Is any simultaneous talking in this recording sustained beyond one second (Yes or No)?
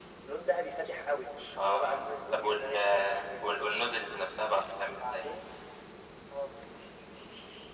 Yes